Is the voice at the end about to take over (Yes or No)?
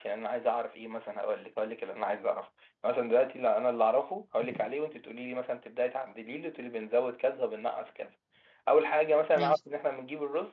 No